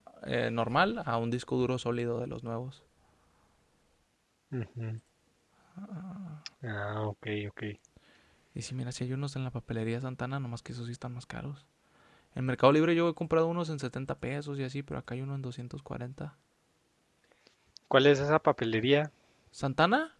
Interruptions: none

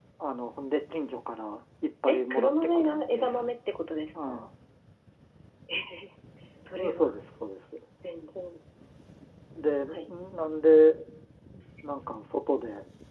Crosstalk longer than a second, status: present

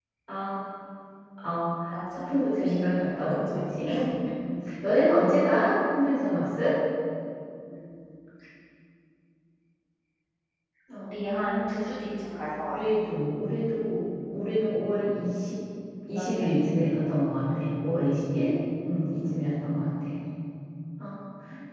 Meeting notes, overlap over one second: present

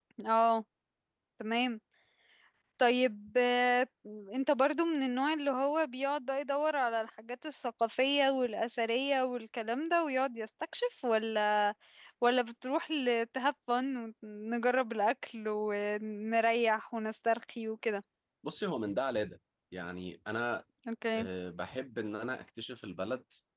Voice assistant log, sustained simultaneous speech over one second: none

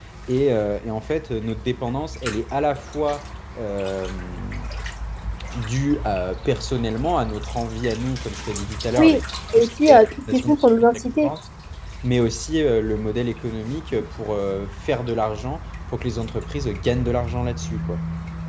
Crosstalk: present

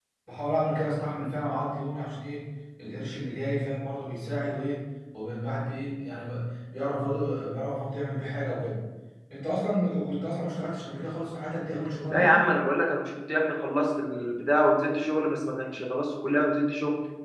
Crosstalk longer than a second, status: none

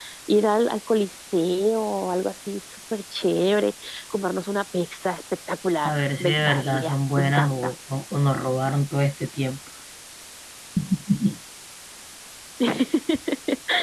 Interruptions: present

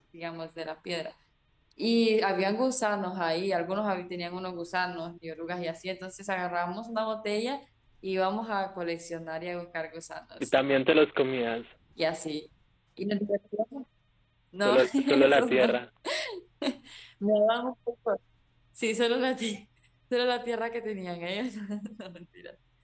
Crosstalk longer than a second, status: present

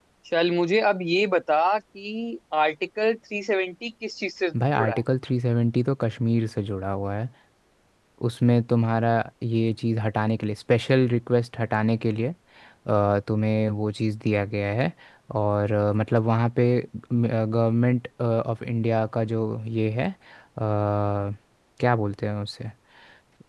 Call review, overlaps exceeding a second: none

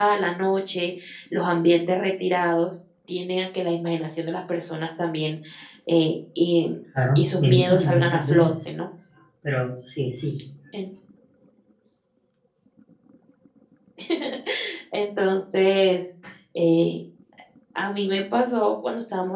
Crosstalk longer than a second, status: present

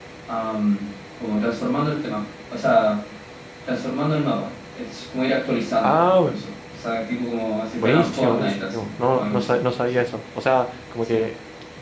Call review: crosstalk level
present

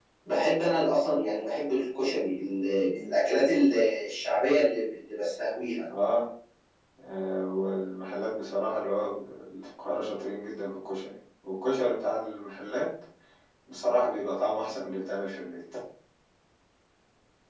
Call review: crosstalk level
none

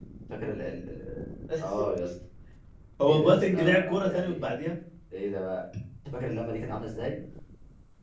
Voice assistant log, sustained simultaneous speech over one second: present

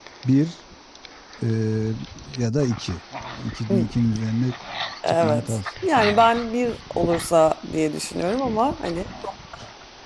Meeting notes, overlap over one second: present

